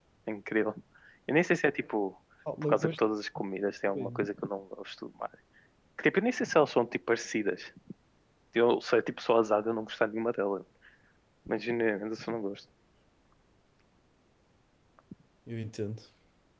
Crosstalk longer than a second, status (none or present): none